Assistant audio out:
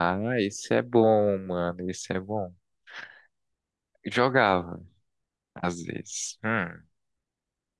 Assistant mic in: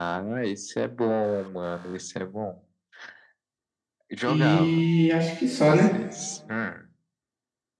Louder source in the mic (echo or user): user